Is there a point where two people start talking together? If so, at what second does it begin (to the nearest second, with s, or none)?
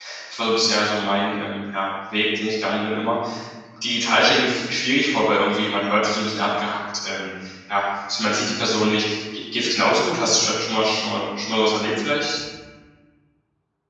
none